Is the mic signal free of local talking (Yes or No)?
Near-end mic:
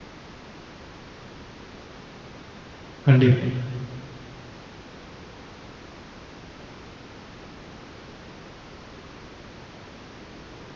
No